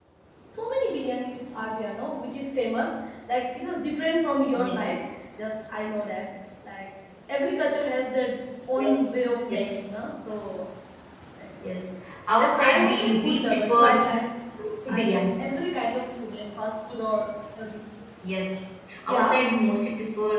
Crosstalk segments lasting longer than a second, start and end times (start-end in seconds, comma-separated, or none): 12.4-14.0